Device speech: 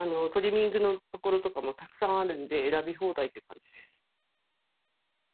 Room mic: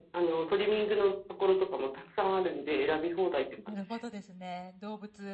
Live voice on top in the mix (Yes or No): No